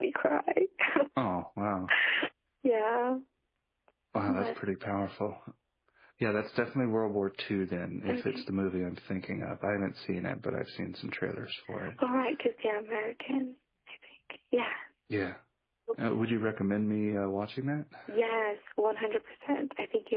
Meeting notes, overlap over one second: none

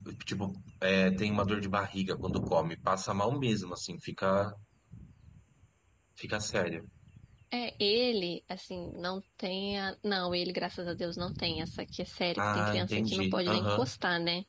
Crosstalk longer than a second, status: present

